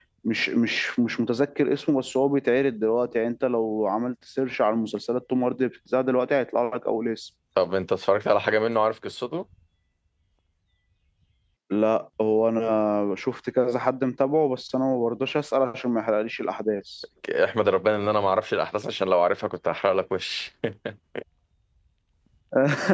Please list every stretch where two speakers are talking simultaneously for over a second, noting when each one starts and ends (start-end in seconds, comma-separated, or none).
none